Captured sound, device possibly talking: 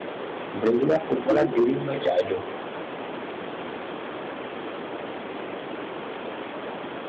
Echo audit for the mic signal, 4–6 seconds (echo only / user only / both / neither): neither